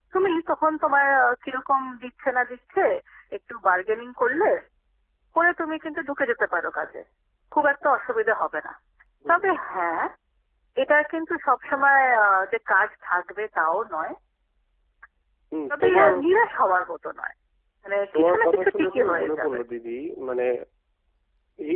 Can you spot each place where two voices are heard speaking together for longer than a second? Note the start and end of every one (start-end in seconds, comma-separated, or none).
18.1-19.6